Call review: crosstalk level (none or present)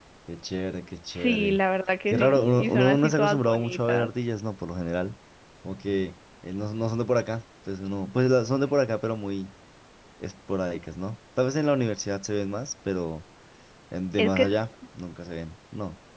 present